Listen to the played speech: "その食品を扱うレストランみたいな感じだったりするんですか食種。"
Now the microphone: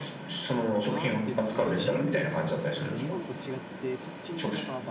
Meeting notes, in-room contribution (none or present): present